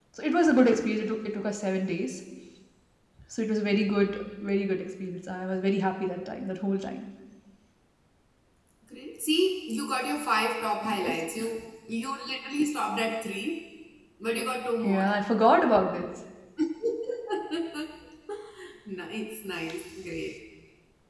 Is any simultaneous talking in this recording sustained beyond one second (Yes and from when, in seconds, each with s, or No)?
No